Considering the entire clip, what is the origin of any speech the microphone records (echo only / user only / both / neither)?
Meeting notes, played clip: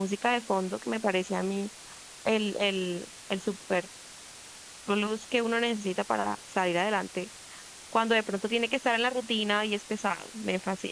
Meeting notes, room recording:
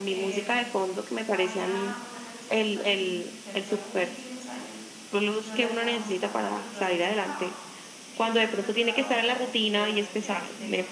both